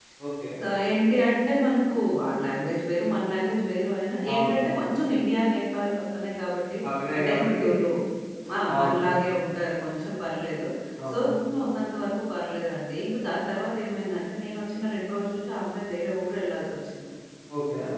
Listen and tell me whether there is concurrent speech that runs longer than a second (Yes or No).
No